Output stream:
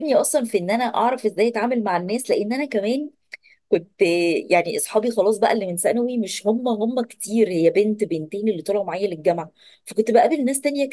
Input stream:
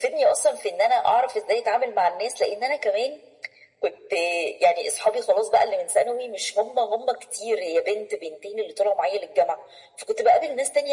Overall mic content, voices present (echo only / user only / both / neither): echo only